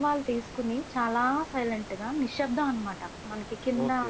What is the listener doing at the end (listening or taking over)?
taking over